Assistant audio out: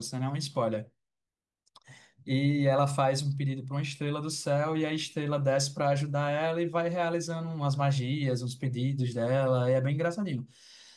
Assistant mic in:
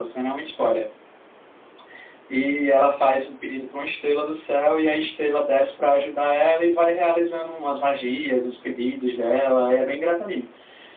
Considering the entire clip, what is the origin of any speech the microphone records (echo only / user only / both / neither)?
echo only